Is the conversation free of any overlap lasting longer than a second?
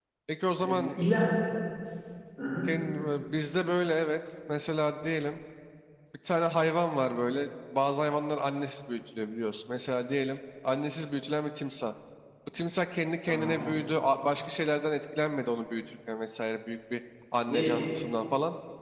Yes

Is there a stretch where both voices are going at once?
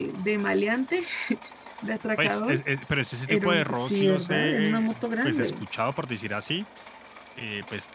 Yes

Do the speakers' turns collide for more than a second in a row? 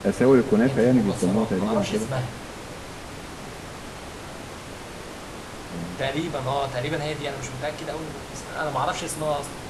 Yes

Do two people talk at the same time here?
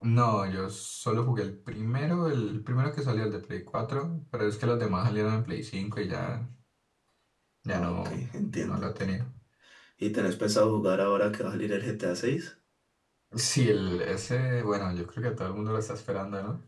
Yes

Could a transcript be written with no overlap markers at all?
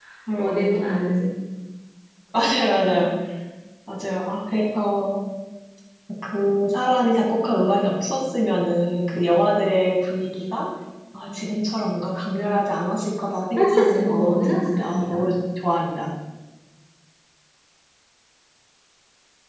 No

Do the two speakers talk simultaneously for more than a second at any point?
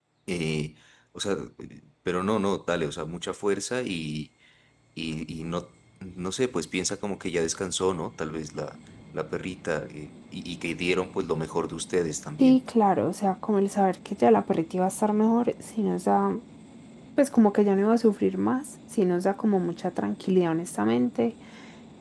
No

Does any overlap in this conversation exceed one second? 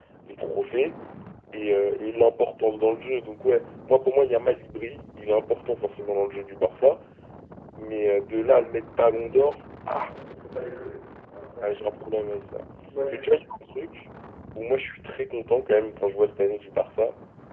No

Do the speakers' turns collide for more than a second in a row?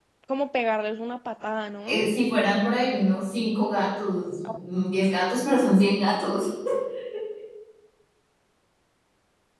No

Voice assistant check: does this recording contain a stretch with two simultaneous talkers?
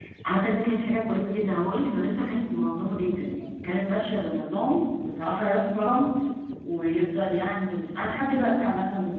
No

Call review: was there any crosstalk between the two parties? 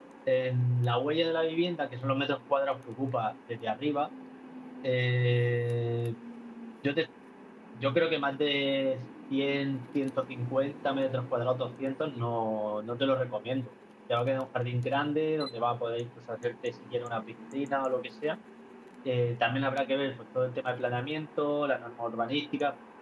No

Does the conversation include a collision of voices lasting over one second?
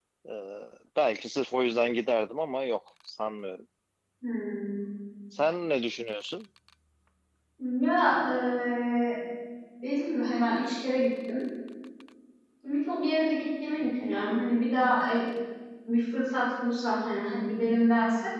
No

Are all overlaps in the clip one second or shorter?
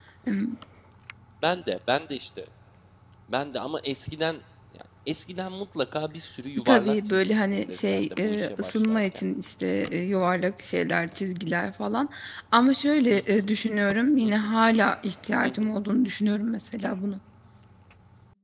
No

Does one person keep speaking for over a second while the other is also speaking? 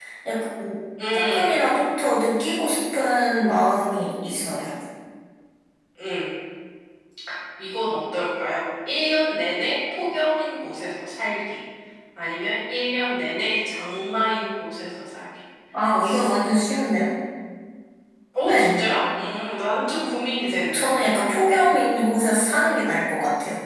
No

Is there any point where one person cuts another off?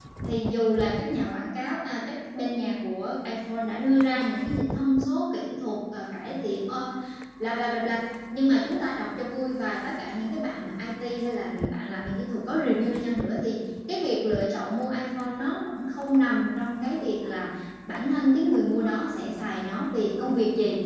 No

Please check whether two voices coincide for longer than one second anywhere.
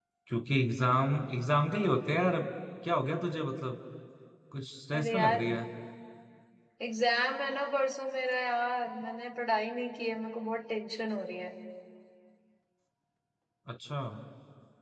No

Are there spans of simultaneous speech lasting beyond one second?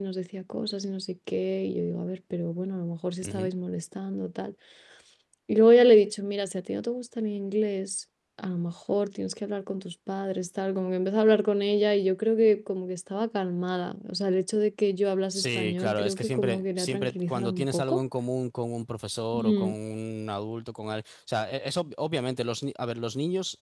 Yes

